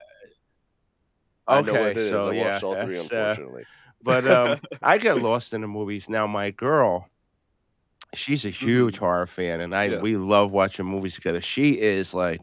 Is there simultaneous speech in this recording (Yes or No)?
Yes